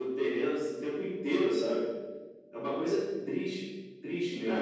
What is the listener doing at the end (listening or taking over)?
taking over